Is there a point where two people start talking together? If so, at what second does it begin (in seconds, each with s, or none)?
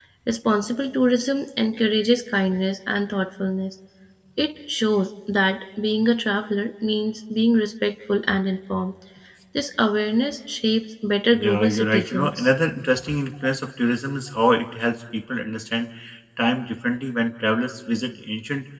11.3 s